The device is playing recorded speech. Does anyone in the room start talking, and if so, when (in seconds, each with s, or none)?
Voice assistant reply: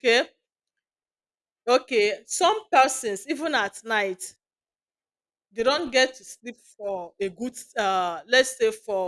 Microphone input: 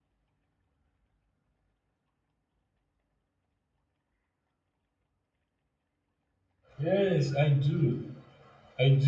6.8 s